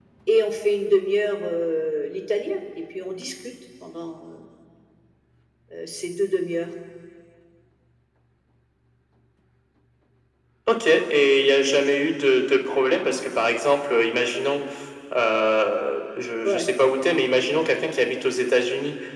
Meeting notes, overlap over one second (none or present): none